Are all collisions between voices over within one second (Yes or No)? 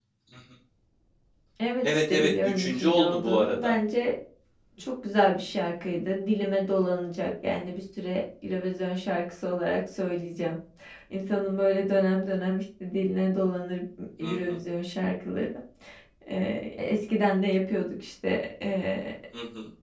No